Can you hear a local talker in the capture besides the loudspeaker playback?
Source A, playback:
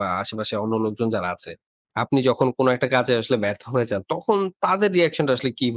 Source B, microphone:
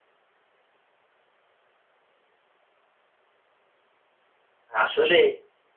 Yes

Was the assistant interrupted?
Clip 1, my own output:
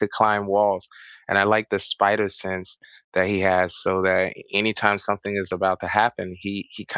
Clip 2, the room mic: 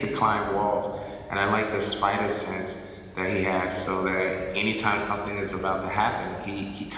No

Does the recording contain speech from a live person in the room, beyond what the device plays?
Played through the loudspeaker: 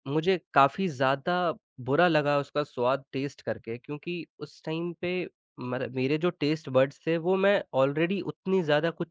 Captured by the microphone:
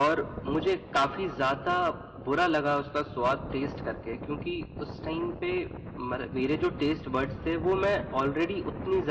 No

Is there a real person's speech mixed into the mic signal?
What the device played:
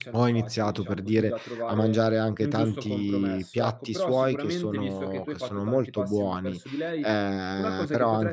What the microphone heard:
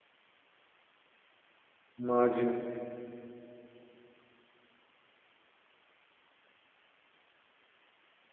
Yes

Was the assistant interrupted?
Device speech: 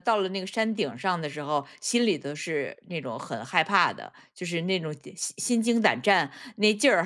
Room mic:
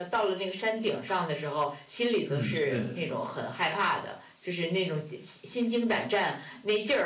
Yes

